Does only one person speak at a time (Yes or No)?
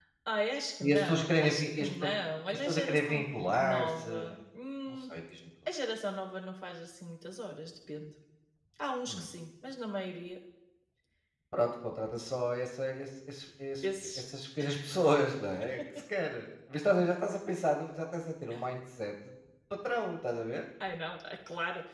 No